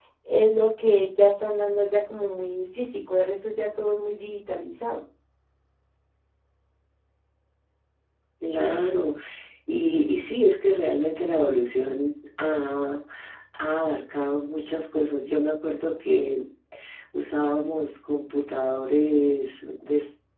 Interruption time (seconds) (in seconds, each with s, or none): none